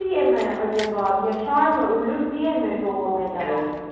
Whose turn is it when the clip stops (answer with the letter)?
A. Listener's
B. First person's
A